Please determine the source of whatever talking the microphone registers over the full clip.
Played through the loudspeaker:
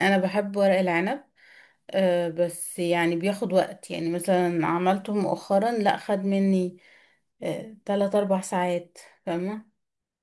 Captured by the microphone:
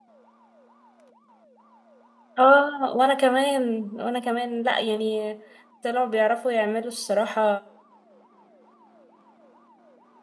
user only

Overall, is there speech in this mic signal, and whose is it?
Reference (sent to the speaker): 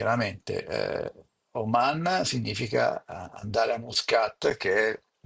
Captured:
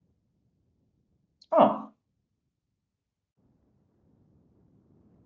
user only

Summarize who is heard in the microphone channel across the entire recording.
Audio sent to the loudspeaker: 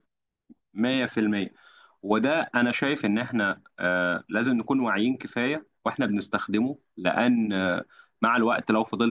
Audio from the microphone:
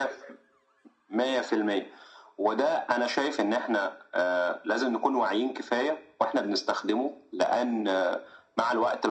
echo only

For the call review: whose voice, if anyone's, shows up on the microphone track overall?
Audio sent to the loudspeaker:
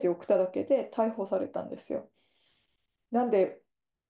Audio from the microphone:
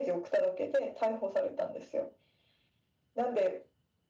echo only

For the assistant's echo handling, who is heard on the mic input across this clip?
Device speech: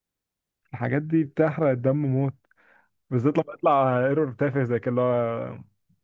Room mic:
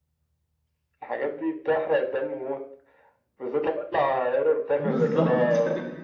both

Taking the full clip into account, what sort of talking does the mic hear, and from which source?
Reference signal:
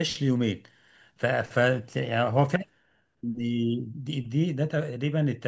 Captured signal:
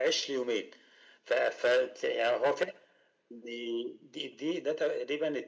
echo only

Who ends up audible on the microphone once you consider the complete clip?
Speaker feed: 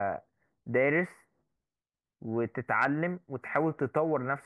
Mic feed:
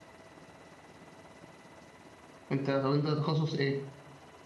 user only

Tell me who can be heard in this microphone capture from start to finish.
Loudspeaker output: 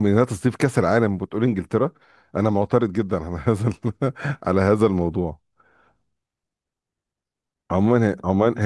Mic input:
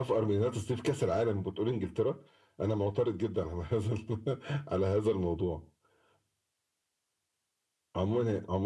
echo only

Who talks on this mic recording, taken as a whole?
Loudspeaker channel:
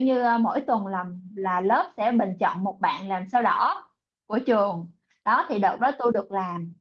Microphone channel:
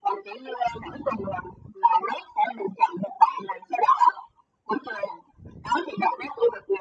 echo only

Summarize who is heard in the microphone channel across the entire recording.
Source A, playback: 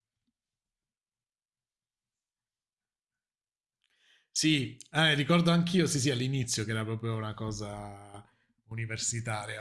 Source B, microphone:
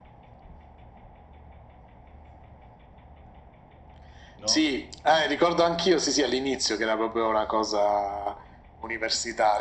both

